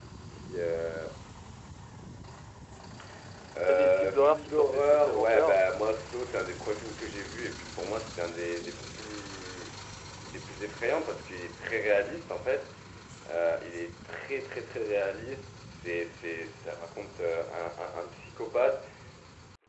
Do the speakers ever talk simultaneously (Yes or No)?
Yes